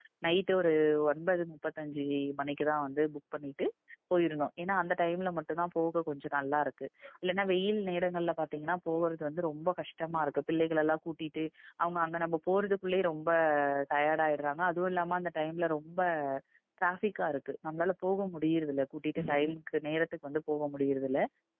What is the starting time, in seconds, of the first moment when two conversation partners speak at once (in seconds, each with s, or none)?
none